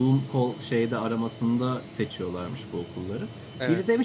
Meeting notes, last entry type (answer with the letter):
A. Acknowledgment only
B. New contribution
A